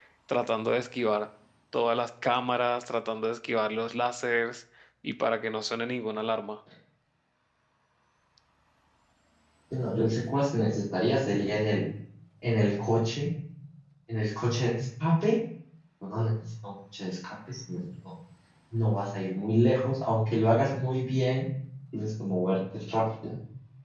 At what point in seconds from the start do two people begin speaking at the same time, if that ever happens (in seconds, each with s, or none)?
none